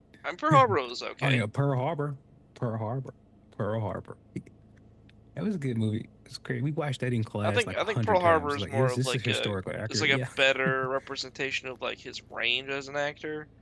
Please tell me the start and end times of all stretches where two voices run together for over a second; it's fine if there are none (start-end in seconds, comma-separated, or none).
7.4-9.5